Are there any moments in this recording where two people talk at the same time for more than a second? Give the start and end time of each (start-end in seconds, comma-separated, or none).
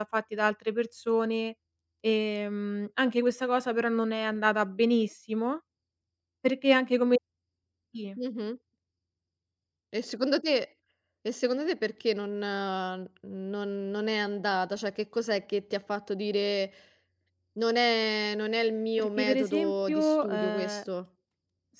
19.0-20.8